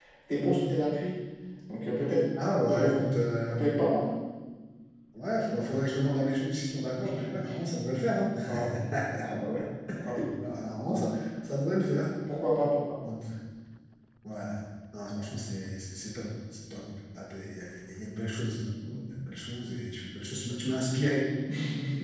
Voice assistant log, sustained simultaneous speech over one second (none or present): none